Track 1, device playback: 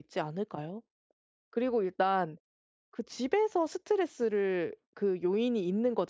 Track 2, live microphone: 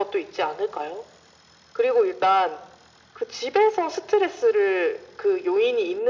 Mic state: echo only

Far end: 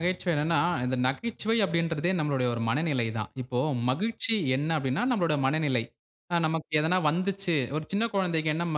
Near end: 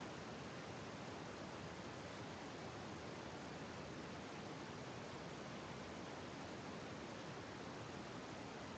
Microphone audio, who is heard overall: neither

